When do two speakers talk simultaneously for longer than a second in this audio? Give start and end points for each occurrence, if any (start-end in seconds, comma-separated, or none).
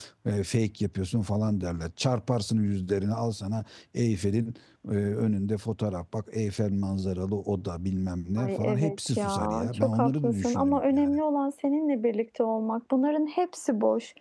8.4-11.1